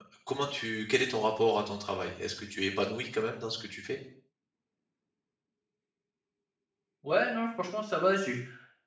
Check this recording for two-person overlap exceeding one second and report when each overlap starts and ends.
none

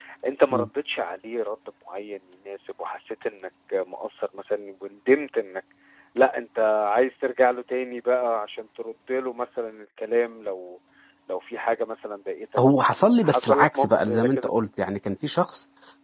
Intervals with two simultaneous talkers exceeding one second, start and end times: 12.8-14.5

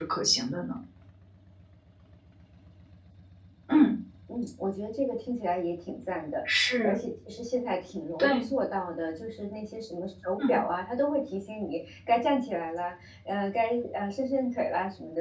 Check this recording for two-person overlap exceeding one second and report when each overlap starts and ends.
none

